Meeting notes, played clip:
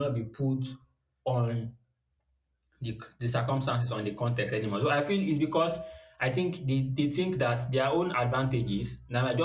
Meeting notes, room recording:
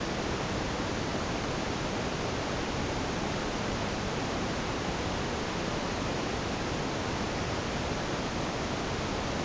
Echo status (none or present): none